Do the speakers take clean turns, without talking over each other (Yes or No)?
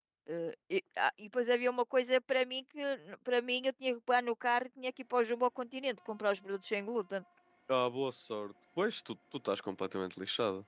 Yes